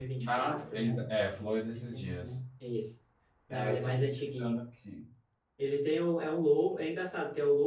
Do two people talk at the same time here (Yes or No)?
Yes